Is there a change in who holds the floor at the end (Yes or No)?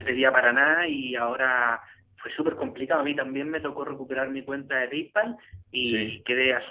No